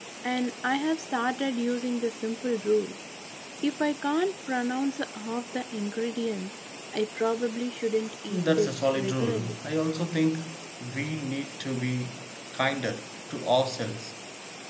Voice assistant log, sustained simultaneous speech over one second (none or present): present